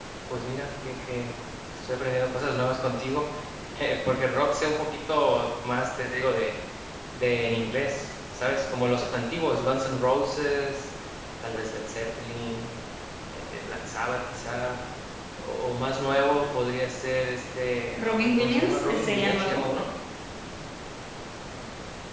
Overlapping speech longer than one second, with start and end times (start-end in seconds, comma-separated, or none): 18.0-19.6